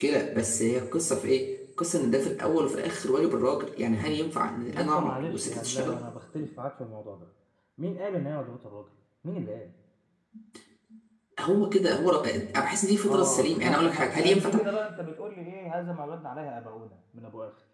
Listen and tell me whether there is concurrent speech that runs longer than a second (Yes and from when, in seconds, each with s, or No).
Yes, from 4.7 s